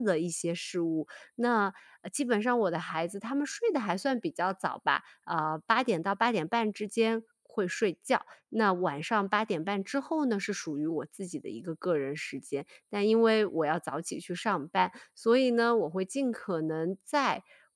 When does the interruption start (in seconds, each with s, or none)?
none